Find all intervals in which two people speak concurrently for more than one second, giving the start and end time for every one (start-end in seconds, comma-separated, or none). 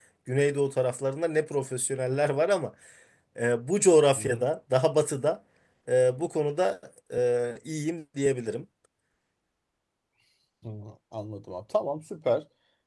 none